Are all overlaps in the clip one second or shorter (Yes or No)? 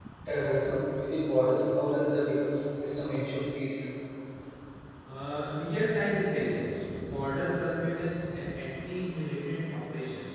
Yes